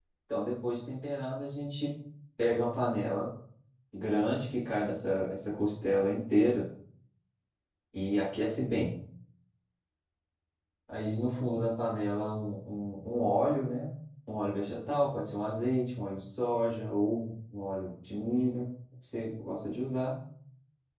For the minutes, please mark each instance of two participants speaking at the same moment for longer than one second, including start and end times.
none

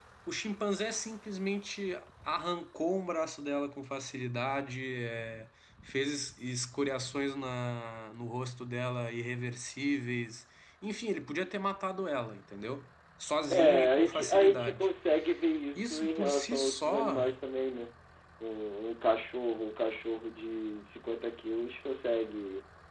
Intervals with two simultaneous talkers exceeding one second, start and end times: 13.5-14.9, 15.8-17.4

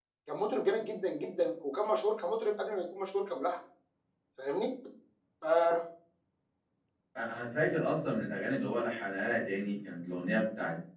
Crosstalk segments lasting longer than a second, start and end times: none

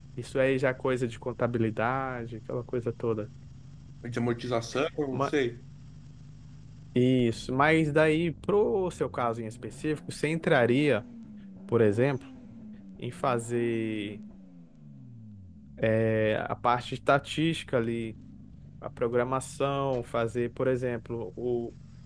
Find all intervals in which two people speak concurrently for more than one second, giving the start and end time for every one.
none

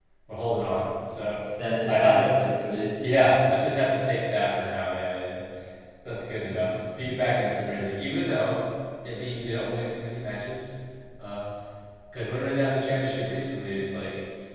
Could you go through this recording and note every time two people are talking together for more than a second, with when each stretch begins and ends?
none

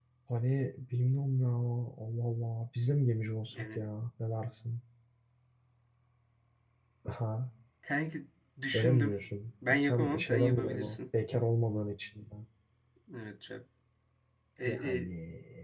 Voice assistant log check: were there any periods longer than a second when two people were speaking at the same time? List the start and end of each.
9.7-11.0

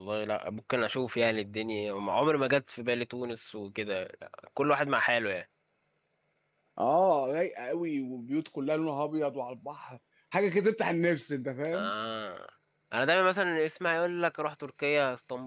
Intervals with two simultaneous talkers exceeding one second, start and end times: none

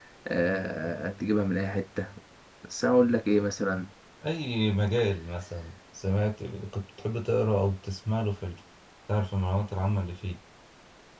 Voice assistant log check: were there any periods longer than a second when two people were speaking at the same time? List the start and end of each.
none

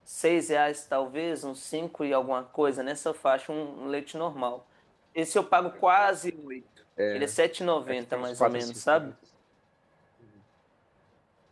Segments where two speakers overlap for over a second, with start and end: 7.9-9.1

